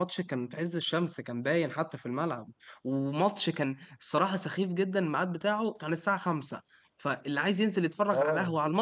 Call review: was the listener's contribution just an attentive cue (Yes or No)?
Yes